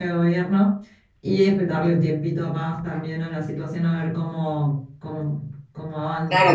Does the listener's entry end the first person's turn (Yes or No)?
Yes